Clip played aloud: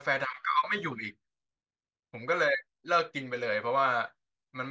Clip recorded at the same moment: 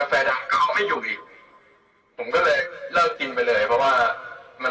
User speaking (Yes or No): No